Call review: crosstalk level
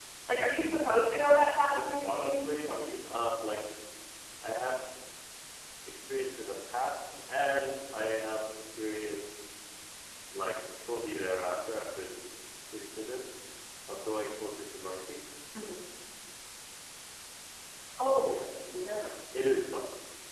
present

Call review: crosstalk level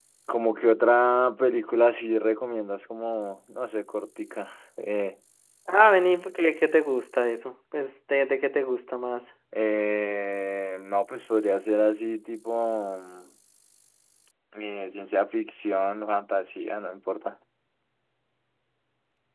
none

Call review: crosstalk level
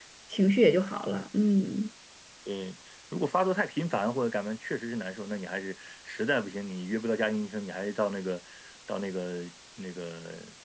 none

